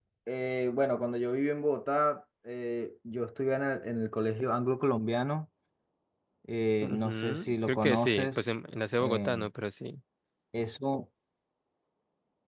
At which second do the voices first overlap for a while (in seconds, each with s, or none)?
6.8 s